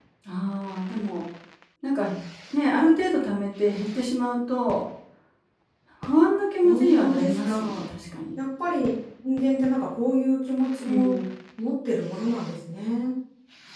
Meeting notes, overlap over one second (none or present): present